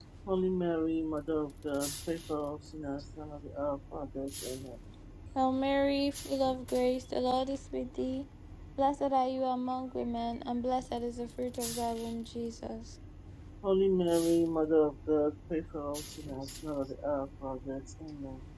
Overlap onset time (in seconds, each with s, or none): none